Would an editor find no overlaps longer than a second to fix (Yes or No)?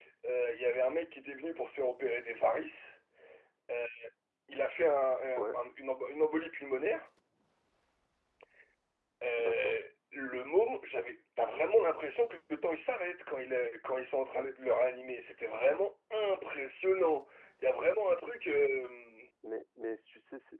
Yes